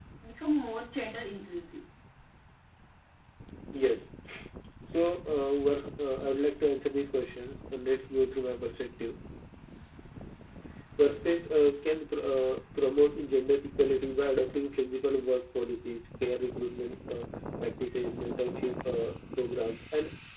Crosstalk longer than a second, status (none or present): none